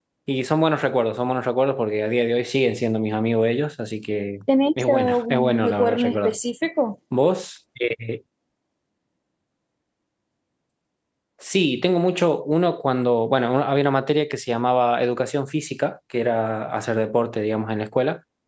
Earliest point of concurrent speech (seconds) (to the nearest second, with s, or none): 5 s